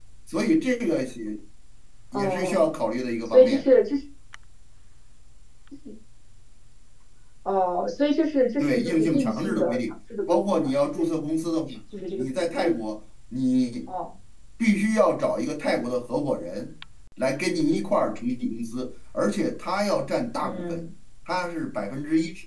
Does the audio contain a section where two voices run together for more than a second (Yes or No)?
Yes